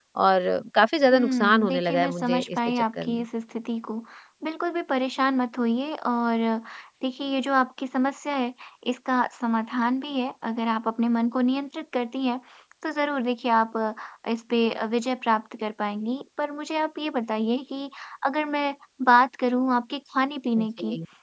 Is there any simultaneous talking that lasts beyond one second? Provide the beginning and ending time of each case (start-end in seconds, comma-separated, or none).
1.1-3.2